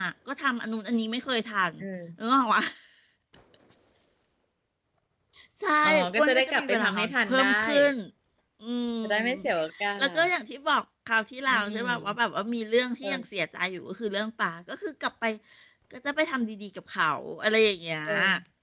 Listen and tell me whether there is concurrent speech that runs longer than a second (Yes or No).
Yes